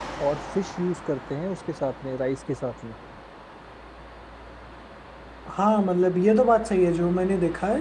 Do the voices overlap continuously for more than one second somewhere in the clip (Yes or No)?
No